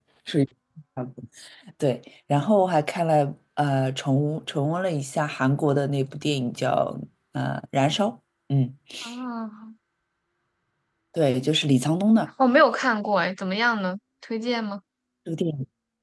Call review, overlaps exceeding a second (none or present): none